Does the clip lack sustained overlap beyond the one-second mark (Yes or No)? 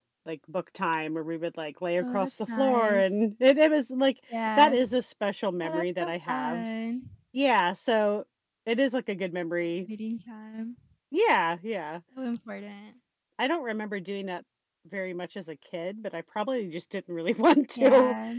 No